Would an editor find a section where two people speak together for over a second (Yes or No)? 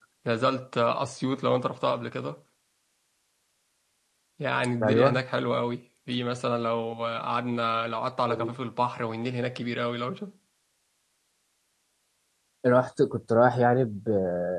No